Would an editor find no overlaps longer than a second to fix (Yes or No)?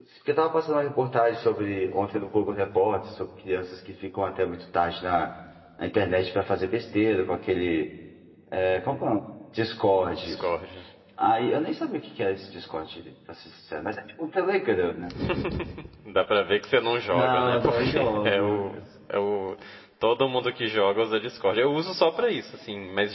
No